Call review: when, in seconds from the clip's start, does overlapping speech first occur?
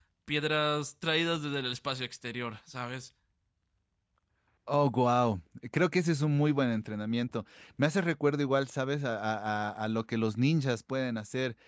none

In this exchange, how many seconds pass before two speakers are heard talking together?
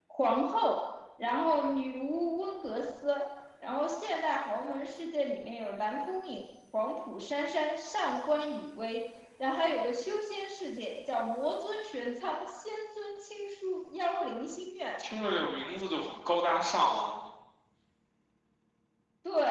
none

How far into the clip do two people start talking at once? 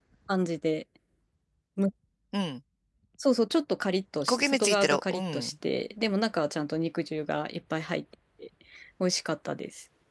4 s

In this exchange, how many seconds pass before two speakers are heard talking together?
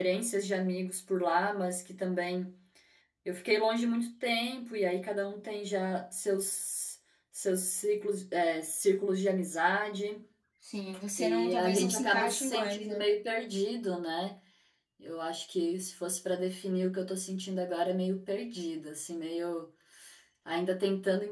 11 s

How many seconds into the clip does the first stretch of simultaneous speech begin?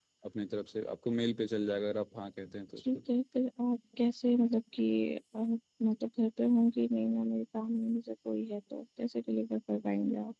none

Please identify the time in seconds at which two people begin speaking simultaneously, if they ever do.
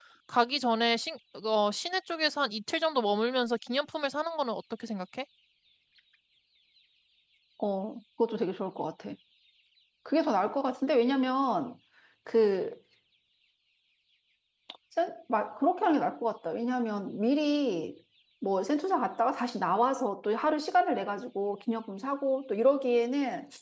none

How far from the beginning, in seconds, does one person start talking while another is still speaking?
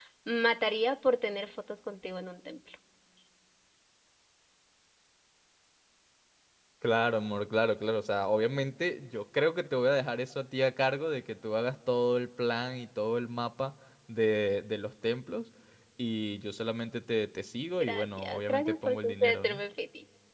18 s

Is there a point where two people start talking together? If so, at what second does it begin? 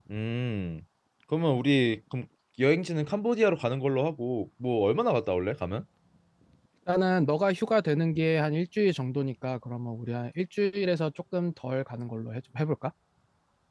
none

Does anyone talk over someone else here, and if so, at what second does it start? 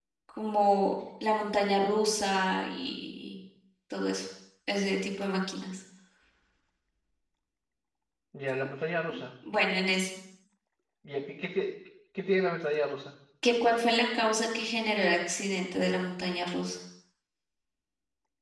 none

